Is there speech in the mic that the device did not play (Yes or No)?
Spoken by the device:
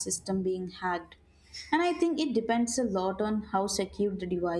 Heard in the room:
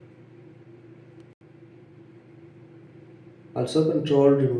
Yes